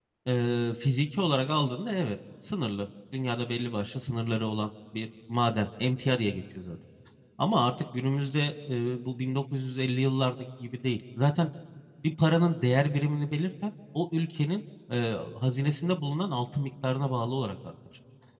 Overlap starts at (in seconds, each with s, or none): none